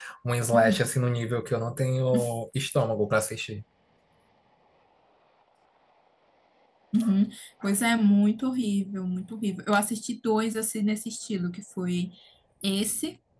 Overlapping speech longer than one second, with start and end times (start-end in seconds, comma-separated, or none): none